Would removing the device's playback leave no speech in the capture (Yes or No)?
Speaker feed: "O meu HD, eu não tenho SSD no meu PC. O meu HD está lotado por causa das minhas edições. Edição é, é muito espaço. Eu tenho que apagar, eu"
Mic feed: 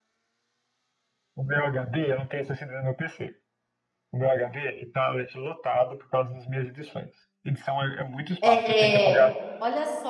No